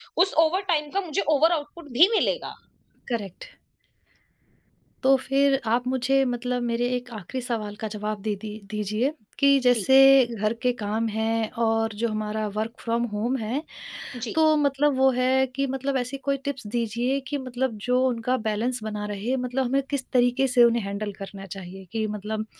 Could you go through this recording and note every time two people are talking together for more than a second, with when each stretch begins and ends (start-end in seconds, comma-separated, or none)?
none